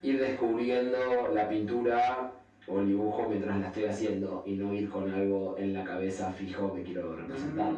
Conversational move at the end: taking over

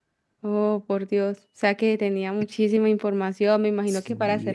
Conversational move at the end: taking over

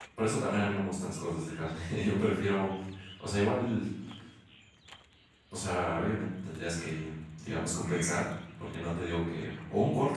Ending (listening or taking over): listening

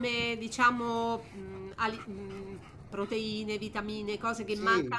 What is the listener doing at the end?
taking over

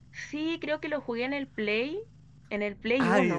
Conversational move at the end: taking over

